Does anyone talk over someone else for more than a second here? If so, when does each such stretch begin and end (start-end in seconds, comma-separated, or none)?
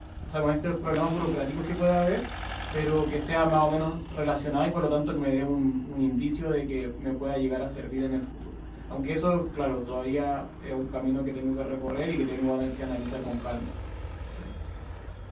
none